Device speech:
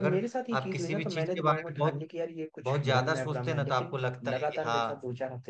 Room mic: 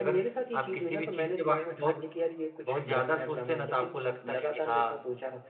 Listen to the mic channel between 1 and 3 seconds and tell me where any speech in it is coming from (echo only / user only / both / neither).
echo only